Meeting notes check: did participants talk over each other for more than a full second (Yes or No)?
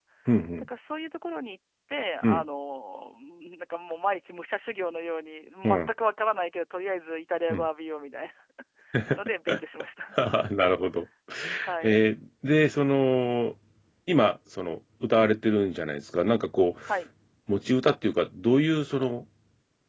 No